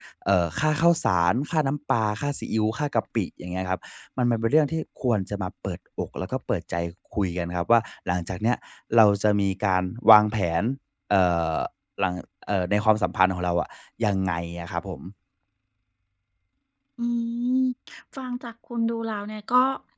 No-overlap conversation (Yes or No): Yes